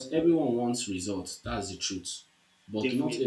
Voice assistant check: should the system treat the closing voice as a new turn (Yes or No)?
No